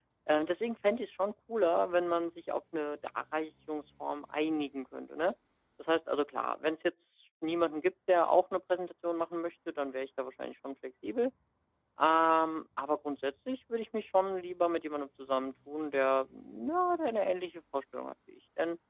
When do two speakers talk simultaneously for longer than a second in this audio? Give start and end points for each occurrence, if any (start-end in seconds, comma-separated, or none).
none